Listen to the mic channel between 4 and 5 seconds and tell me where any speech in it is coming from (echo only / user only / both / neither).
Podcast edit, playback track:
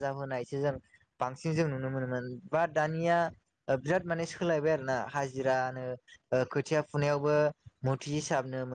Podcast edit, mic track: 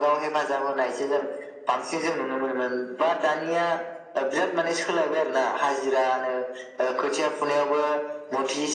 echo only